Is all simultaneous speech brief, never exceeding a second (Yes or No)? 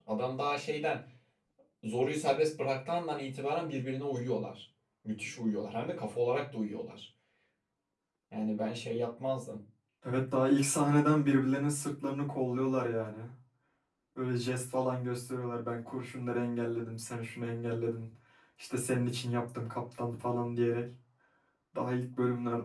Yes